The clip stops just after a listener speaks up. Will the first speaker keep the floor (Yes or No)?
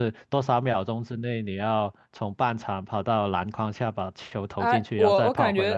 No